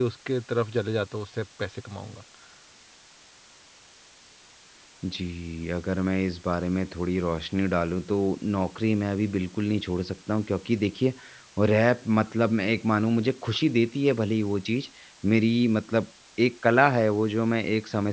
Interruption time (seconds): none

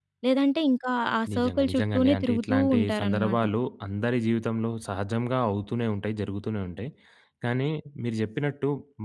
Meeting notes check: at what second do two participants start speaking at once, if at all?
1.3 s

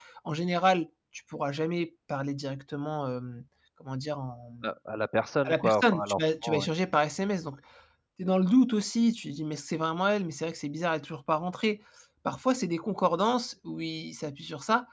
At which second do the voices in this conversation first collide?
5.4 s

